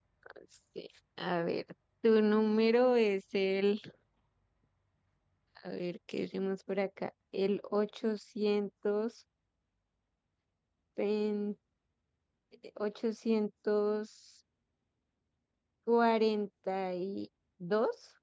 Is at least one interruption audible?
No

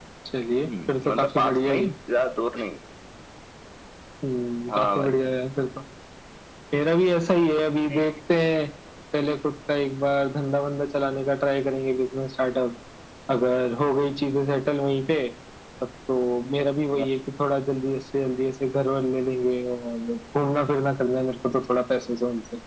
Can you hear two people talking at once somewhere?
Yes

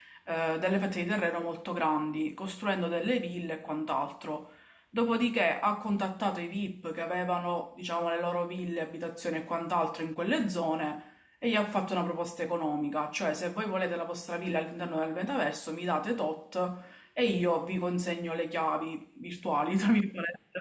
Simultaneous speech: No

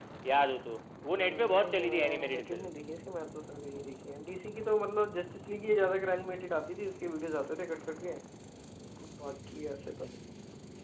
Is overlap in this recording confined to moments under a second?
No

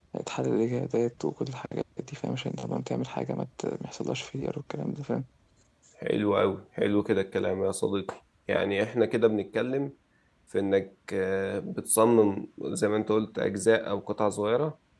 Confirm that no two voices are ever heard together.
Yes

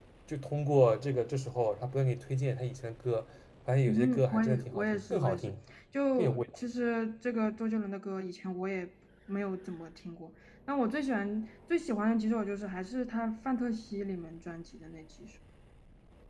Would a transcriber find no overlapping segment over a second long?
No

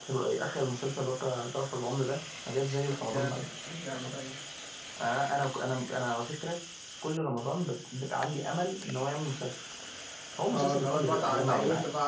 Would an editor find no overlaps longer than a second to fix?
No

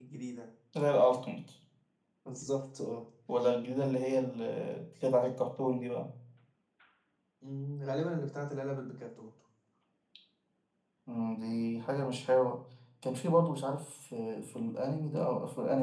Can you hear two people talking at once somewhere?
No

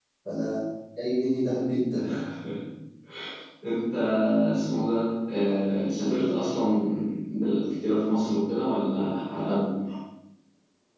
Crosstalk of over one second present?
No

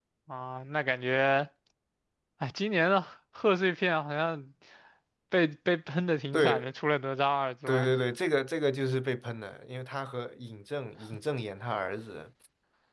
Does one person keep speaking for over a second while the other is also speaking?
No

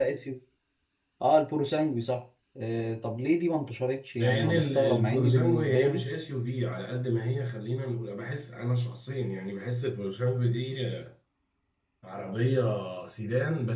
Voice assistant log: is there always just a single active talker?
No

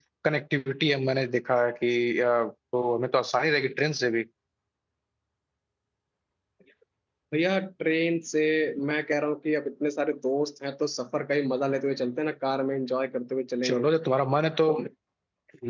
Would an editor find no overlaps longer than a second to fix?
Yes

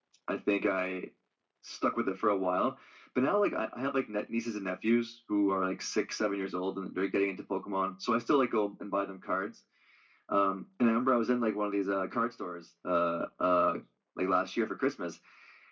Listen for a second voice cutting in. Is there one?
No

